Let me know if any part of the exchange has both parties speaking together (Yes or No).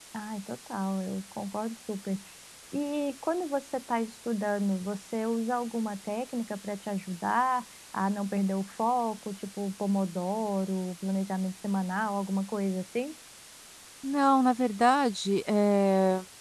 No